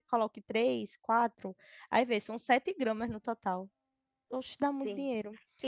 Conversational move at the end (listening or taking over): taking over